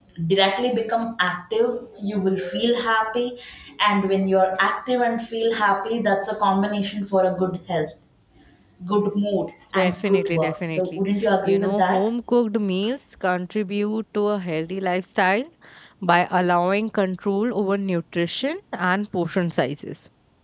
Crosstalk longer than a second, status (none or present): present